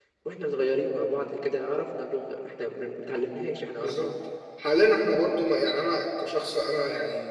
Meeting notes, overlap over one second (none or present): none